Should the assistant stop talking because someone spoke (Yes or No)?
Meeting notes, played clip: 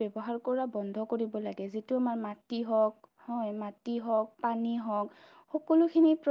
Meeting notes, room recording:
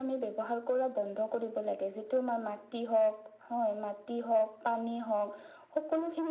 No